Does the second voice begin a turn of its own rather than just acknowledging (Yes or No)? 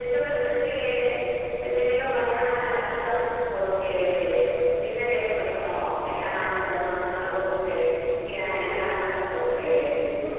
No